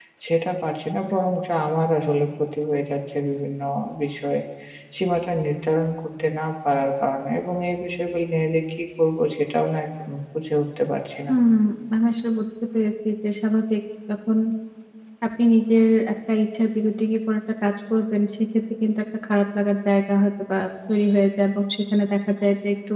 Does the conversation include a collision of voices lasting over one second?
No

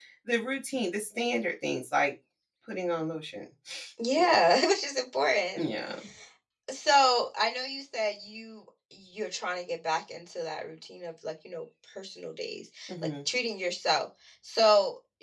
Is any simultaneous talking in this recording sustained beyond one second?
No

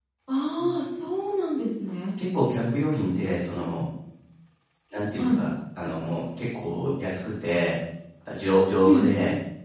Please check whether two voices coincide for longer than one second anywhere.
No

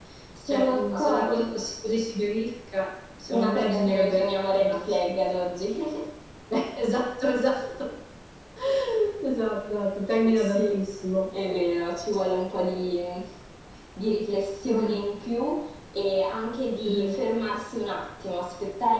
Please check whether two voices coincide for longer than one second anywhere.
Yes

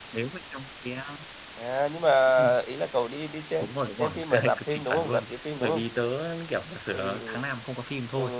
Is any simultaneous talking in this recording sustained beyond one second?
Yes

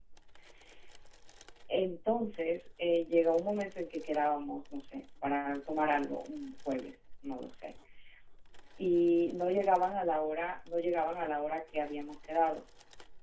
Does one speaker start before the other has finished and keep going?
No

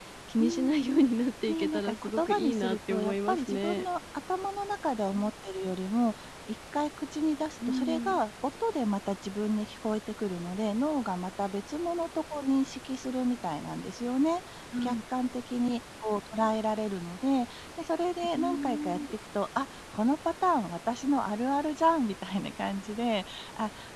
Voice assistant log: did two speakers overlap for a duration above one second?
Yes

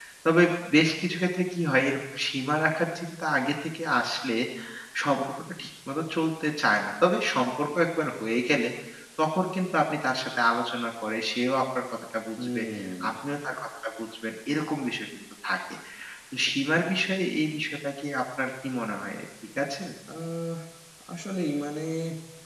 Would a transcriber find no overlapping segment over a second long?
Yes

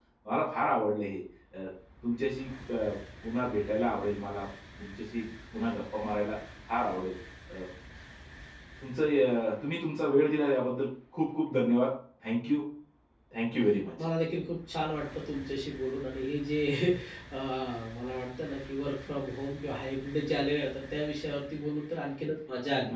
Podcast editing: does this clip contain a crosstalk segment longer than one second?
No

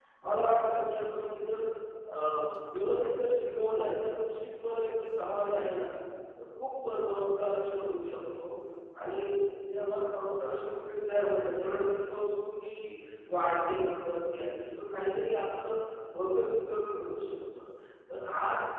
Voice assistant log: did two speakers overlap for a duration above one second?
No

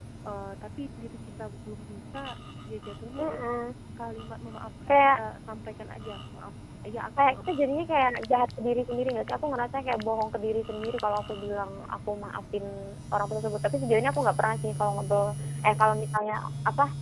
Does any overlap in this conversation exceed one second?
No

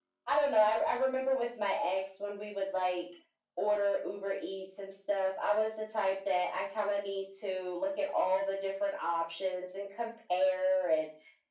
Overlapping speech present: No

